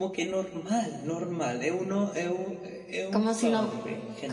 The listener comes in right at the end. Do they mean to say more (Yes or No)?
Yes